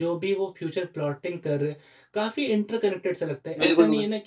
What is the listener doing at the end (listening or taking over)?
listening